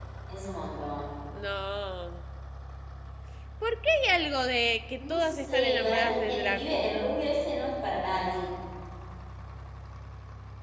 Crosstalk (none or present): present